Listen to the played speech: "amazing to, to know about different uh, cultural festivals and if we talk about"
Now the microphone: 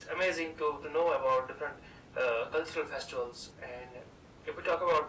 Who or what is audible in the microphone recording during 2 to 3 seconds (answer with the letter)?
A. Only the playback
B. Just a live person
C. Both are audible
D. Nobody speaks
A